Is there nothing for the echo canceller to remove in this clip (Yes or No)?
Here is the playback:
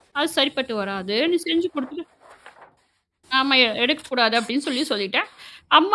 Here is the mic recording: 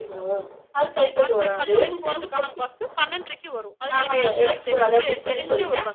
No